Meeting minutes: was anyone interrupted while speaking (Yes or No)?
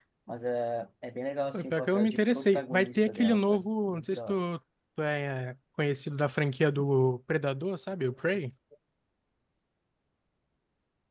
Yes